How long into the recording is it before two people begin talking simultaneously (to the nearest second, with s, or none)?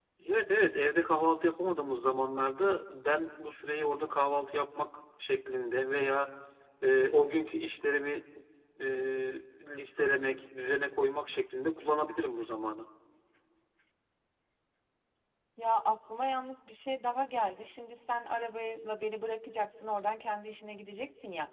none